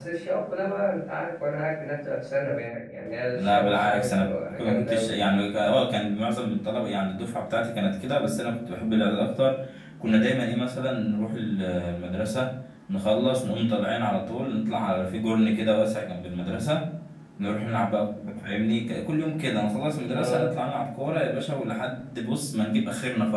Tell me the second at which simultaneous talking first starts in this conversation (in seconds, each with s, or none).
3.3 s